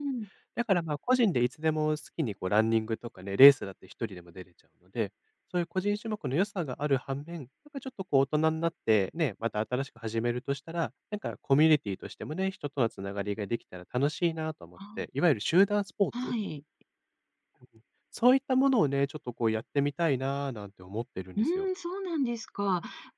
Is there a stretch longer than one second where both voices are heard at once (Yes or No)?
No